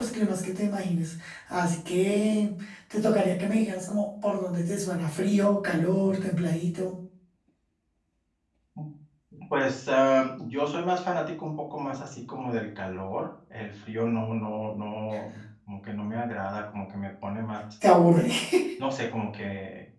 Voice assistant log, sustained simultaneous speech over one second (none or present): none